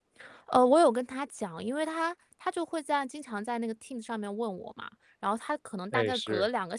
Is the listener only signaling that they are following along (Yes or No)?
Yes